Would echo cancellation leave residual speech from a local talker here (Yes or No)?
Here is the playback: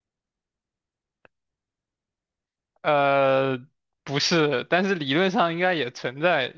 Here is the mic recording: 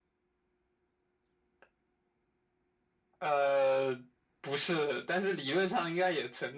No